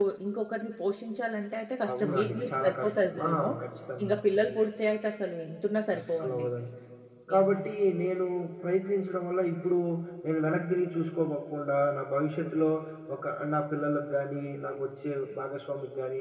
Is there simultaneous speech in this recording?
Yes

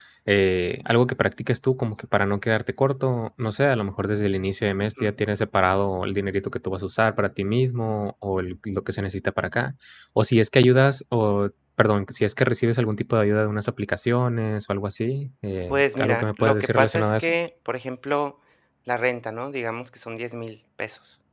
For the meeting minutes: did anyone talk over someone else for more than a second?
Yes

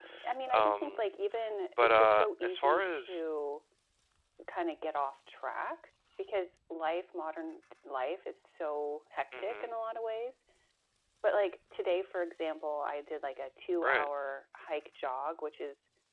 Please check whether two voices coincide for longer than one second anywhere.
Yes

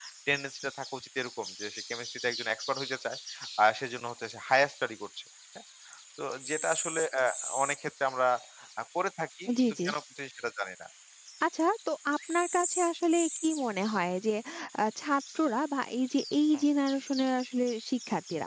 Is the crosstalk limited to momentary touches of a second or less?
Yes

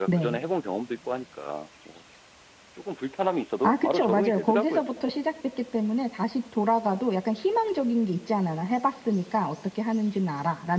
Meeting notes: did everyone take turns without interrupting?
No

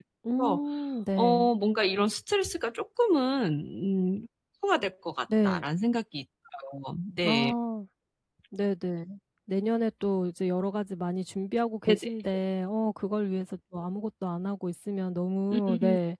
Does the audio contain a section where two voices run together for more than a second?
No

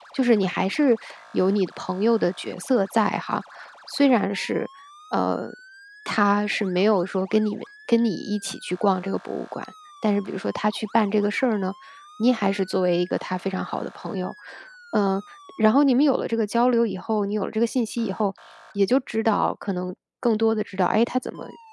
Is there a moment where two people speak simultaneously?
No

